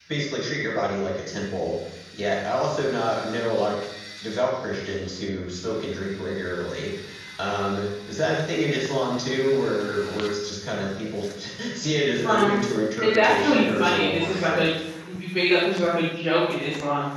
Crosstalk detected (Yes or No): Yes